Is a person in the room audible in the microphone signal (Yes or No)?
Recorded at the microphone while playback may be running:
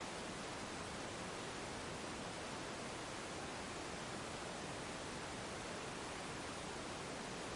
No